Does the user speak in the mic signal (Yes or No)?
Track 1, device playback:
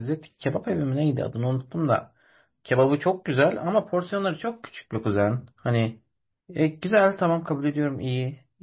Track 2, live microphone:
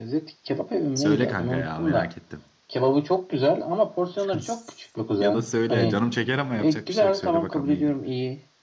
Yes